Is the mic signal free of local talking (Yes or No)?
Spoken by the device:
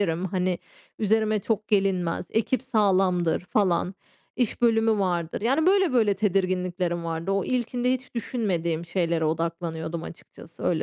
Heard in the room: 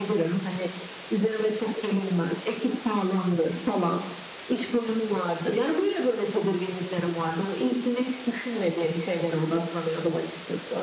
Yes